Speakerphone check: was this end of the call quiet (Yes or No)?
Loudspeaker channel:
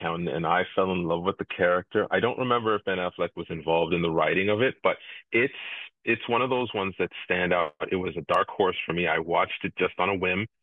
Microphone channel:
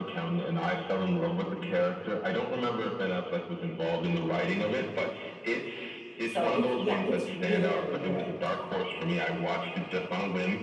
No